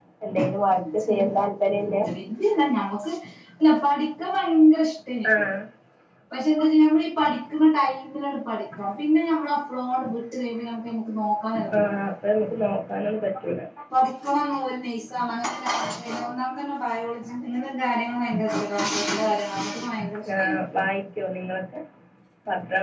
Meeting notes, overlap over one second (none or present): present